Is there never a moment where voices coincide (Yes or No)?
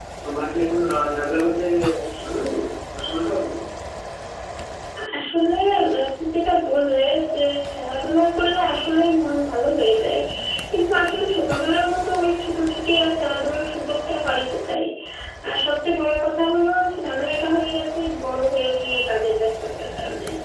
Yes